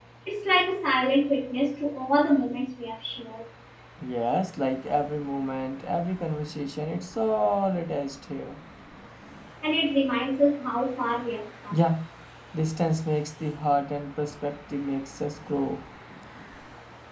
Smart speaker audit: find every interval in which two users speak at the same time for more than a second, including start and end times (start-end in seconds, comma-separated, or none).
none